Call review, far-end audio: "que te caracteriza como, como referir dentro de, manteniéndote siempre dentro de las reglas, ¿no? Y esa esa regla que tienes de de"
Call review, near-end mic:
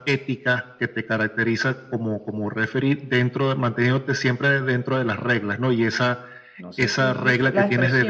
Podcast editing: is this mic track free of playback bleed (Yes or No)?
No